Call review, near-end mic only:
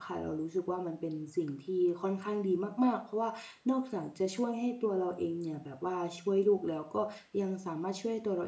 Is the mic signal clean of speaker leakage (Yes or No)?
Yes